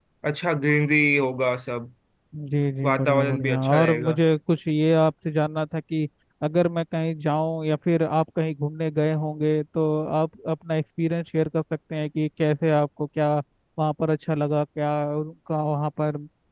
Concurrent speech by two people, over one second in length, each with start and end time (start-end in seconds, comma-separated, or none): 2.8-4.2